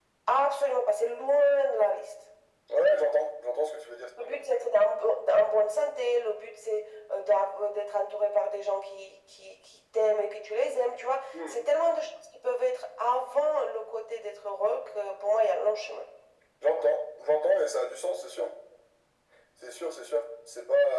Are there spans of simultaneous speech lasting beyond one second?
No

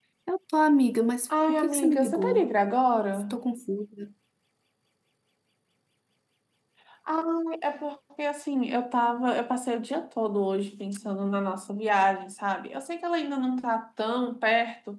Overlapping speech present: Yes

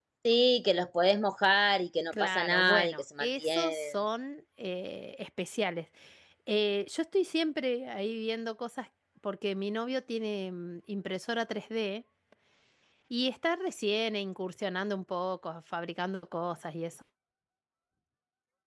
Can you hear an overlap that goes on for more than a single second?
Yes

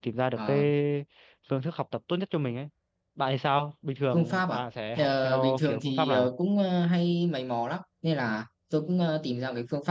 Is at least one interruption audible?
Yes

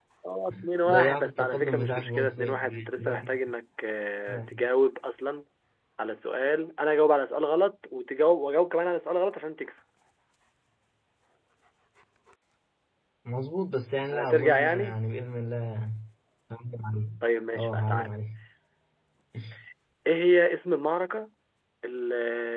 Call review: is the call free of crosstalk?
No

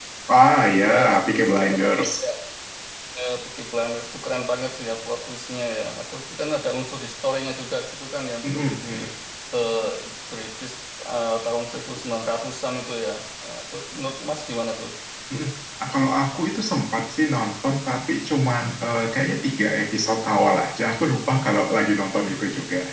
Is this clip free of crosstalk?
No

